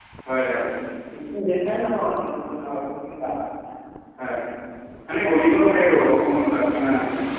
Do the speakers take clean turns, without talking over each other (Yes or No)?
Yes